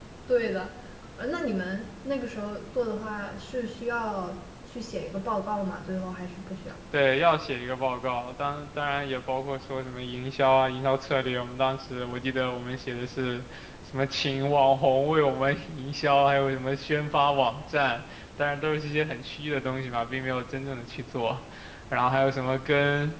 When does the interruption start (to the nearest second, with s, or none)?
none